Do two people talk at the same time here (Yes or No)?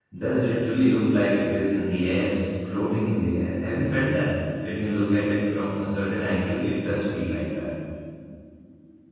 No